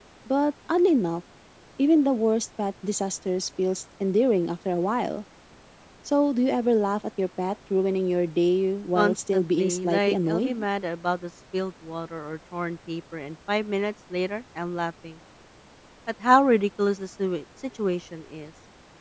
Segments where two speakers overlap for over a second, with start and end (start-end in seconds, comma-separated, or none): 9.0-10.5